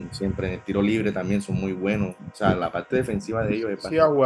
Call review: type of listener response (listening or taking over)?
taking over